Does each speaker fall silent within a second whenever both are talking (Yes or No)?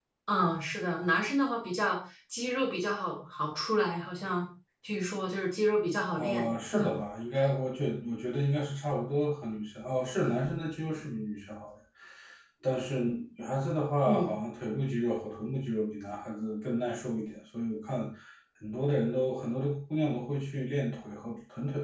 Yes